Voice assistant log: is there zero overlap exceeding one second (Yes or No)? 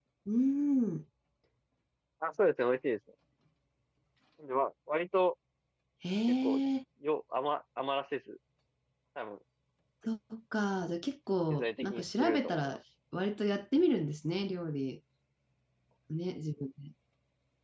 No